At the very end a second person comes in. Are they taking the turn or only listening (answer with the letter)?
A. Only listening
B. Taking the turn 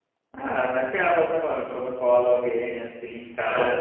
A